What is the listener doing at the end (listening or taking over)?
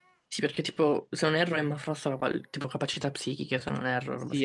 taking over